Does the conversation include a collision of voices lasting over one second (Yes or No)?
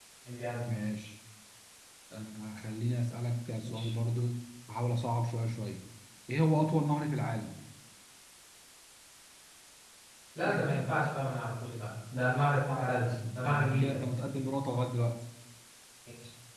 Yes